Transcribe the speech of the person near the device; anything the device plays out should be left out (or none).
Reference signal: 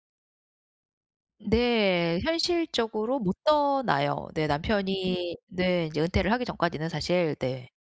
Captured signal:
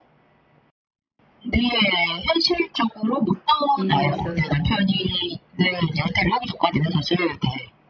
일에 있어서